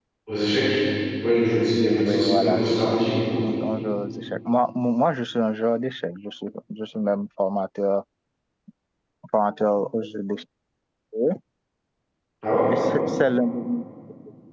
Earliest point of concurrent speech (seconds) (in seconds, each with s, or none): 1.7 s